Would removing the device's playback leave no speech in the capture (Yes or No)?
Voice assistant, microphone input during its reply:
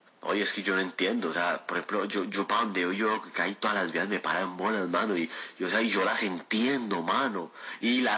Yes